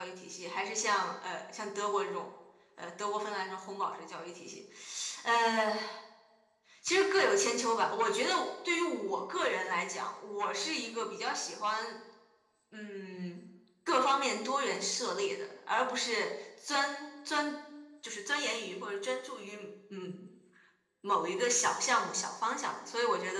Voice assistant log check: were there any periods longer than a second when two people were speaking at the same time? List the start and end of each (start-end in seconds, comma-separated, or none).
none